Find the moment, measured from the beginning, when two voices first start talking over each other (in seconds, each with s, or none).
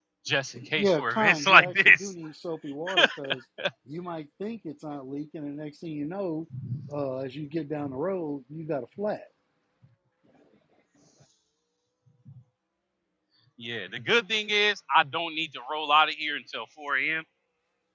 0.8 s